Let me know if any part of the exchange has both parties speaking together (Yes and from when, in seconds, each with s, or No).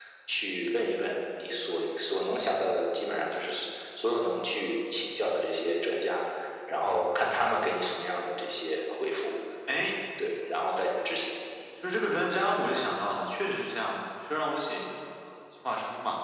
No